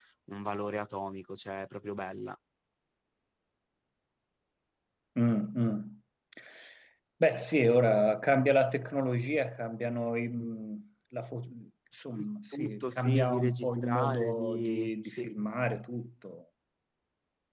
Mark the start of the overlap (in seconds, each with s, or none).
12.2 s